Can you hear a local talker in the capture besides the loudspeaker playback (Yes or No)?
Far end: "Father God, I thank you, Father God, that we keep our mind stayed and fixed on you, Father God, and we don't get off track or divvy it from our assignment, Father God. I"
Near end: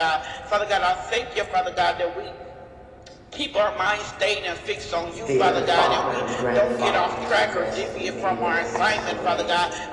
Yes